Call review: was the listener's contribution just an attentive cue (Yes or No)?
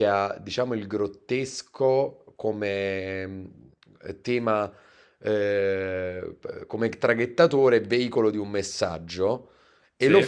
Yes